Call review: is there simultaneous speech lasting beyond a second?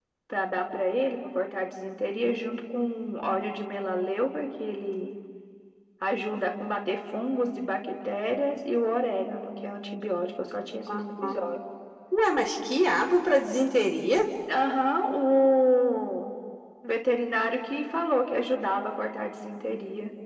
No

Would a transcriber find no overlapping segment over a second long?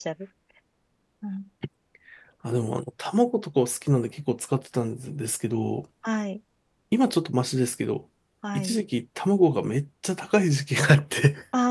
Yes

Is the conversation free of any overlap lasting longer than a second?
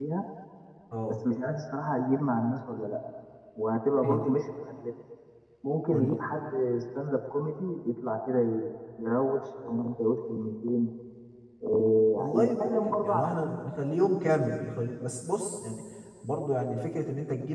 No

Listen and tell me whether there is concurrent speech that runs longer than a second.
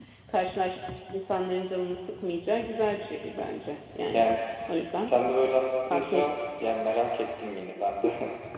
No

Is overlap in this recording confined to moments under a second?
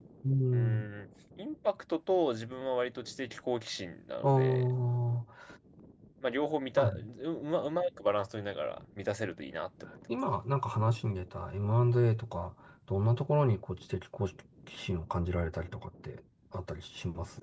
Yes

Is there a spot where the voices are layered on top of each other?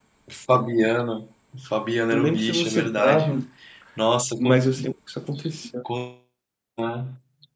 Yes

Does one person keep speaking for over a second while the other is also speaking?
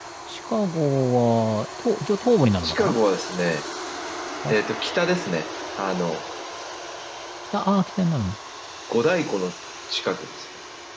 No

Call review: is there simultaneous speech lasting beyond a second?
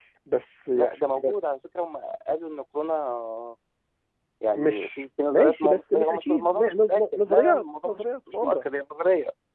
Yes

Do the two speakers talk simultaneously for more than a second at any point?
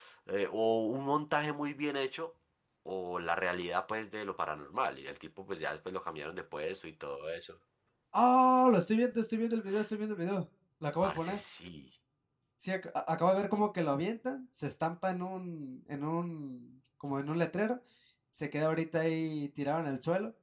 No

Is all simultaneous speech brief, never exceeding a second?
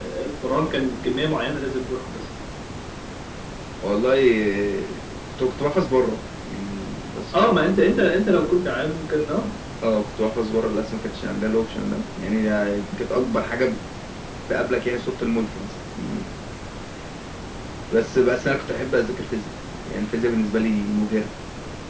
Yes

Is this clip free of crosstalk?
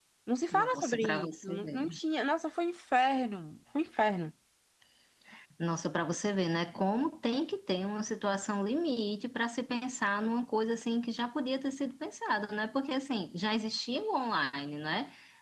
No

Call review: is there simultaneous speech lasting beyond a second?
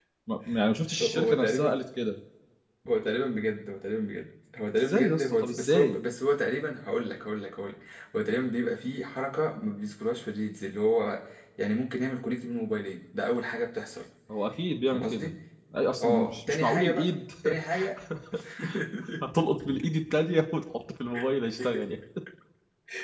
Yes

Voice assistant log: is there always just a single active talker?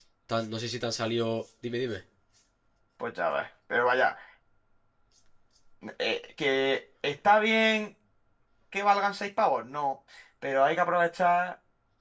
Yes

